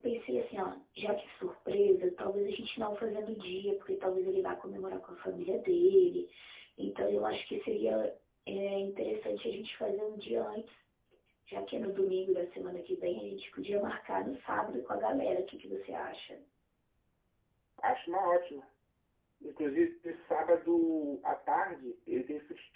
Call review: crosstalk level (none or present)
none